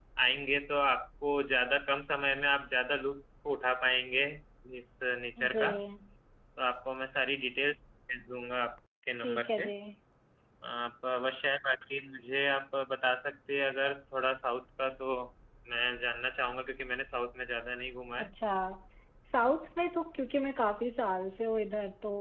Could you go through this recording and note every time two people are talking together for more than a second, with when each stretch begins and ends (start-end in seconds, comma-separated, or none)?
none